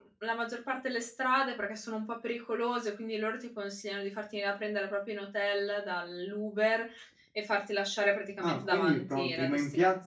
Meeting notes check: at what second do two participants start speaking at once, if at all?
8.4 s

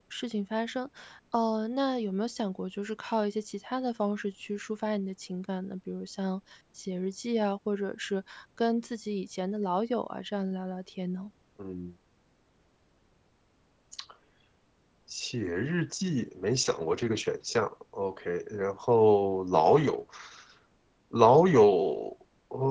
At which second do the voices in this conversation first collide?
none

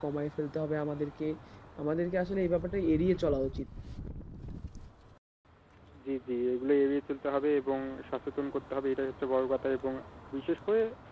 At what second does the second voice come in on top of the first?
none

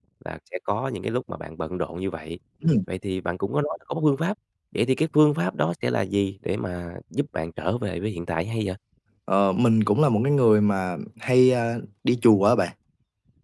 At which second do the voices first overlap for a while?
none

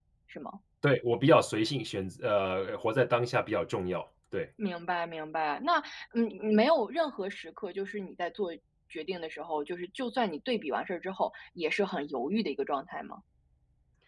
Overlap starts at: none

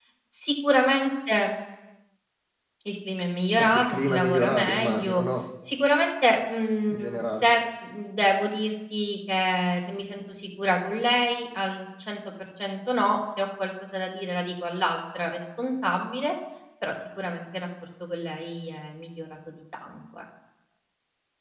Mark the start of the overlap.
3.6 s

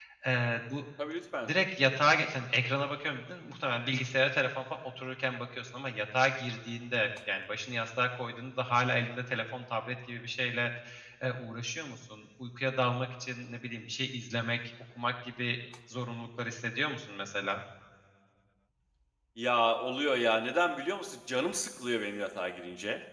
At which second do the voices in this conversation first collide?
none

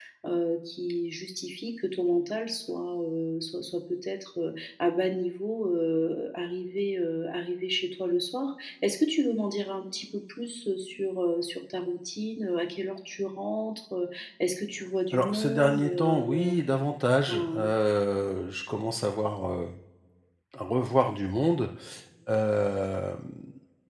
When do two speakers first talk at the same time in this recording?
15.1 s

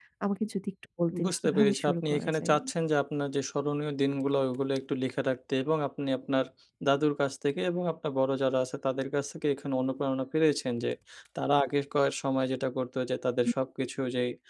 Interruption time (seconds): 1.2 s

